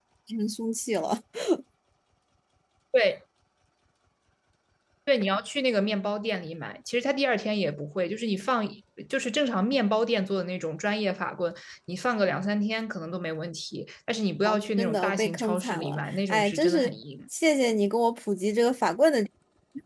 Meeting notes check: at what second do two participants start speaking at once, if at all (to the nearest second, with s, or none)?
14 s